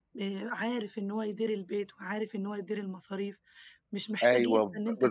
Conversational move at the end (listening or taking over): taking over